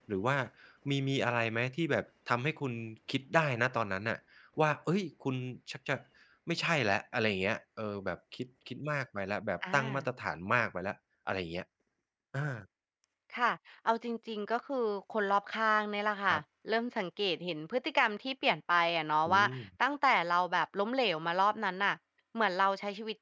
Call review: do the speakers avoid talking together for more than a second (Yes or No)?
Yes